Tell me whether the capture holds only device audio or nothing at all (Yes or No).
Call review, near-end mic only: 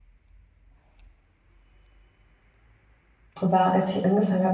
No